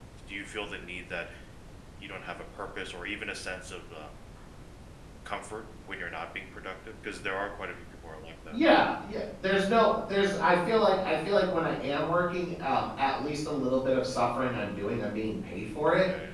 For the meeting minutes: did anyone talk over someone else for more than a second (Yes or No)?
No